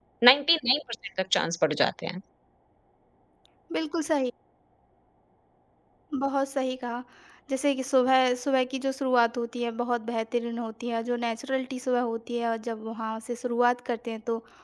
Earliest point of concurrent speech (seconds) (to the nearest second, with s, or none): none